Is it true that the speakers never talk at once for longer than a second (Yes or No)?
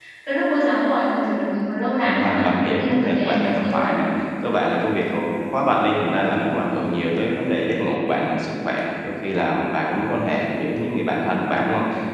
No